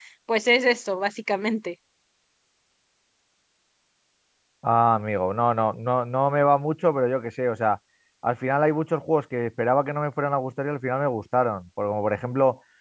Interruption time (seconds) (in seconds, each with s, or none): none